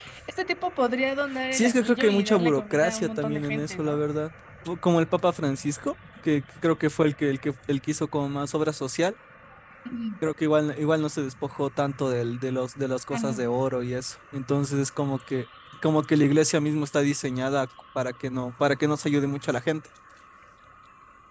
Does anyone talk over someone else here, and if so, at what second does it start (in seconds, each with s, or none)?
1.5 s